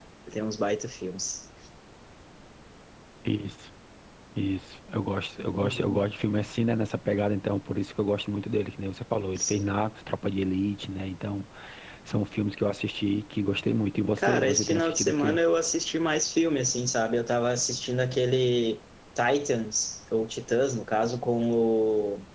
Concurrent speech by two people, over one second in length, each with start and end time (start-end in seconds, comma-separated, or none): 14.2-15.4